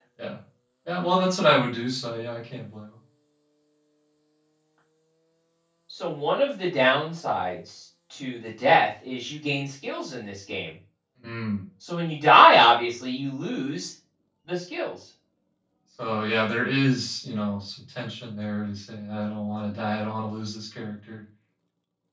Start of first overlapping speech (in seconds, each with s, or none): none